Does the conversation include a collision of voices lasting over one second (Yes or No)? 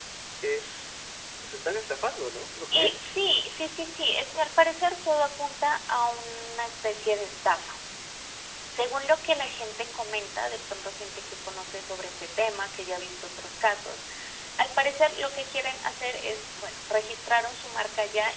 No